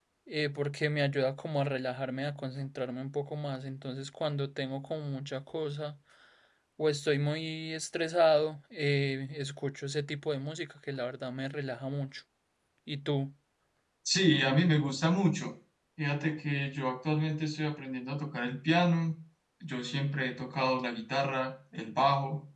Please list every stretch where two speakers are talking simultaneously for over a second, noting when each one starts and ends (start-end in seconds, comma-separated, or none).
none